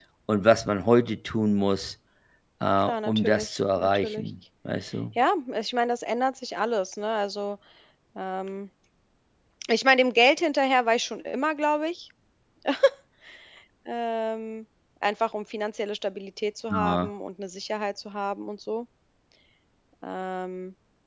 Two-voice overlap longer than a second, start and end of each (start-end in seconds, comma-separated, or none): 2.8-4.2